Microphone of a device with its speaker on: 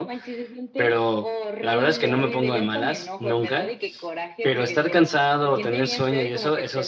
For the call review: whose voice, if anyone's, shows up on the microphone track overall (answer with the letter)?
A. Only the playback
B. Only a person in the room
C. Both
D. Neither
C